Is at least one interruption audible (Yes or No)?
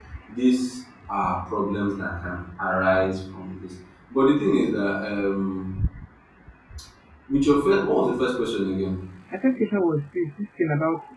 No